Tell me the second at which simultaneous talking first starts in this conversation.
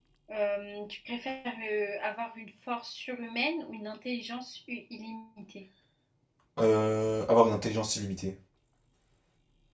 none

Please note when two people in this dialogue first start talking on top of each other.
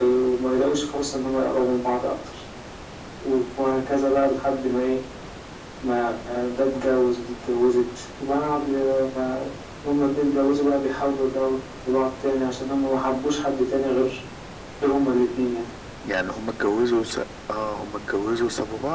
none

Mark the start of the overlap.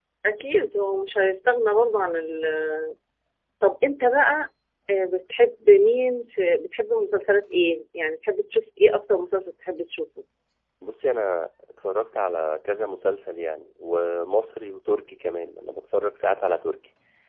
none

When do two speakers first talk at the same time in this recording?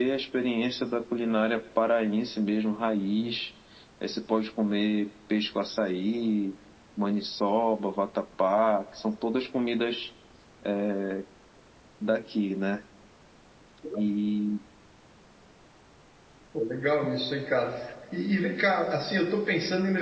none

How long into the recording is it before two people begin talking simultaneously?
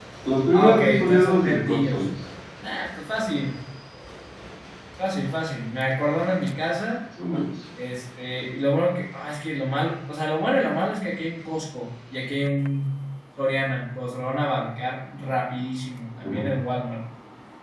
0.5 s

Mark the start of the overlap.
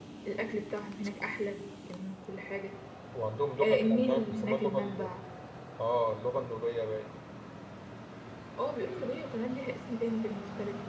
3.6 s

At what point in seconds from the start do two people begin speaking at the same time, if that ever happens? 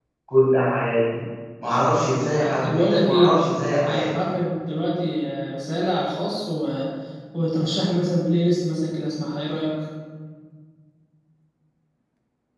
1.7 s

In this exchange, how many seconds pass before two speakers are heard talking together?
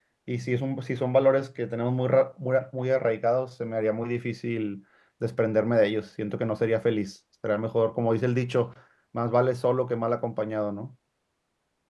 none

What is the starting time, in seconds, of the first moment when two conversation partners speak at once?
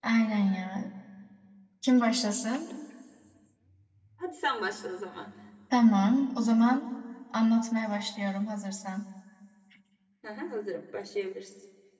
none

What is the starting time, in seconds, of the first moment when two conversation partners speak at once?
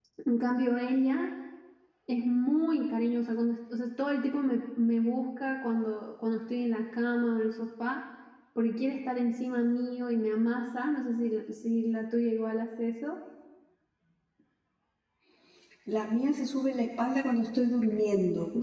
none

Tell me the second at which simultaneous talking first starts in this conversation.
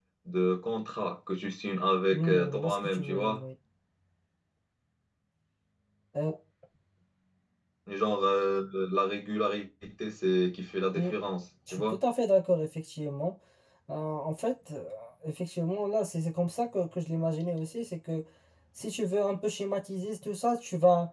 2.1 s

